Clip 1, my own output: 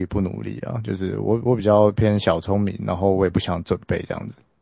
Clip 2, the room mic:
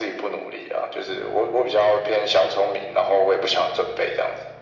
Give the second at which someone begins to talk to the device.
none

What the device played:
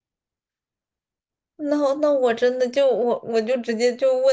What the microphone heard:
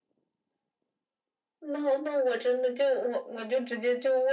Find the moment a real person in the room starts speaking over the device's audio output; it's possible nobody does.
none

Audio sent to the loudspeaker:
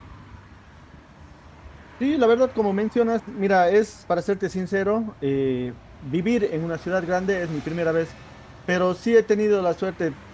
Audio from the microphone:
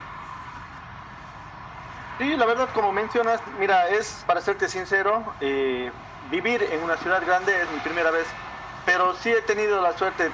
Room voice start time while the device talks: none

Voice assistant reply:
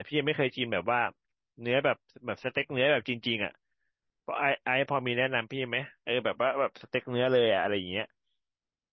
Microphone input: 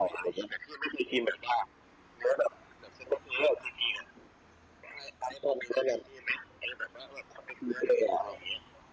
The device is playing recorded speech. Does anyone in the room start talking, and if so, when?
none

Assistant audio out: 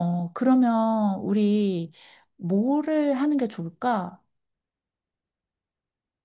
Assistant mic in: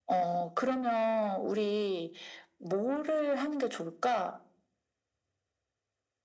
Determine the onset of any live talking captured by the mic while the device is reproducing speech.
none

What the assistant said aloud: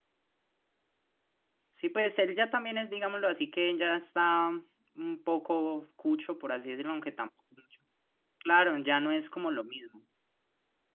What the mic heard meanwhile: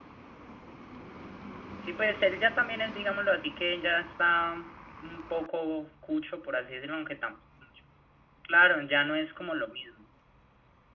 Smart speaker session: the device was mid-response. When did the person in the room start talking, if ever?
none

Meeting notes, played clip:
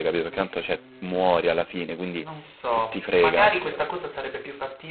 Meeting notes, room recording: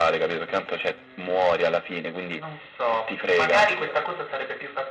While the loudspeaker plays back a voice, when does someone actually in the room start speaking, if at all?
none

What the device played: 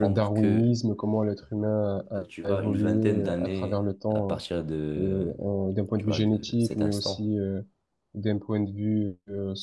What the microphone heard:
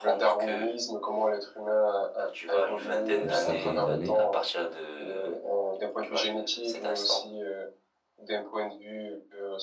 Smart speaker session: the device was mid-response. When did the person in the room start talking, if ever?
3.2 s

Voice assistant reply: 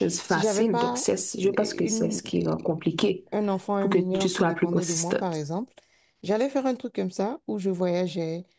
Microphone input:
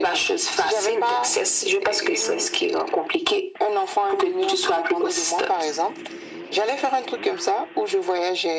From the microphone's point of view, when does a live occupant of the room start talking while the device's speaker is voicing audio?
none

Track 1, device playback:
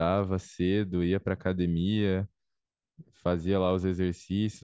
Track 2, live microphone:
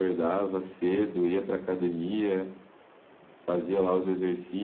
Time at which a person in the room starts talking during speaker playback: none

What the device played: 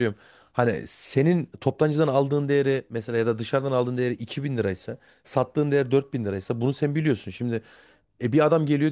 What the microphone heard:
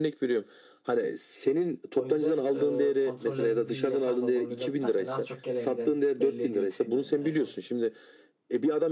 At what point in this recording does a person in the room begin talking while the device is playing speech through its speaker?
1.9 s

